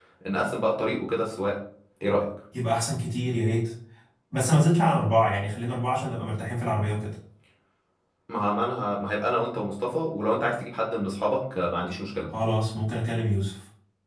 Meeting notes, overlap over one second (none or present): none